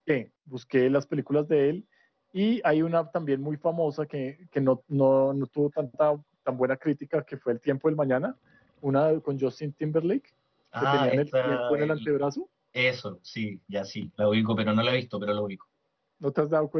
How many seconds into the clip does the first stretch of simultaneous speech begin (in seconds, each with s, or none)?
10.8 s